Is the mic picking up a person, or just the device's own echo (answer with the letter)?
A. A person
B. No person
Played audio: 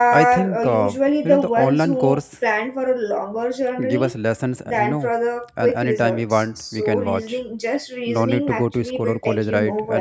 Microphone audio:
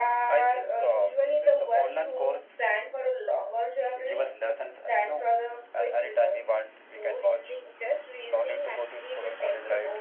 B